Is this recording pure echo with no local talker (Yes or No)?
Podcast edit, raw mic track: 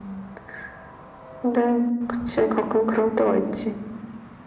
Yes